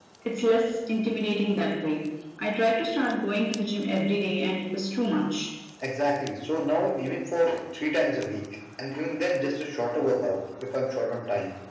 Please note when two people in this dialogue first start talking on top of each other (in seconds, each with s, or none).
none